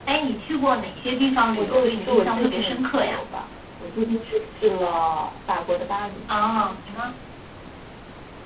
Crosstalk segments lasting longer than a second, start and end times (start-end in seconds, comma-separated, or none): 1.6-3.2